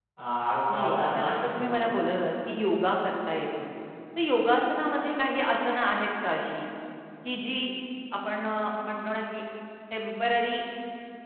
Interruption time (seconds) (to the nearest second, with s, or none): 1 s